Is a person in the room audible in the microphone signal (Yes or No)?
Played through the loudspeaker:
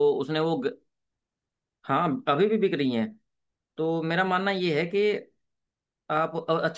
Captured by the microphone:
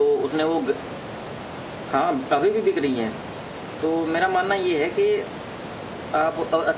No